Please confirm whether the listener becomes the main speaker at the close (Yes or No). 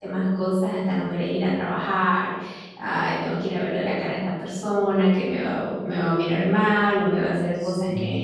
No